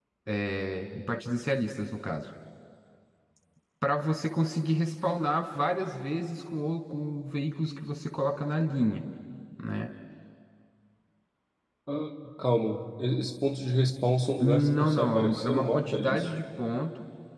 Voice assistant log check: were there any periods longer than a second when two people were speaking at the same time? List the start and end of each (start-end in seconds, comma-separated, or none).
14.4-16.3